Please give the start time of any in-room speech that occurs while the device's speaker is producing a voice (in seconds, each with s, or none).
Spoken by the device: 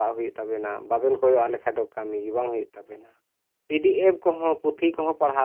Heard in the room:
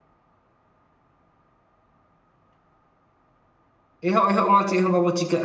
4.1 s